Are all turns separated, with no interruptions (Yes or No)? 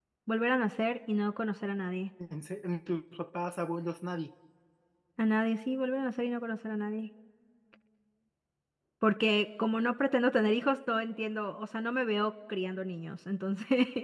Yes